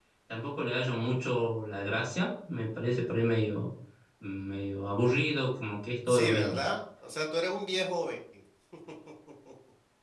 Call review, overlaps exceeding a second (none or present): none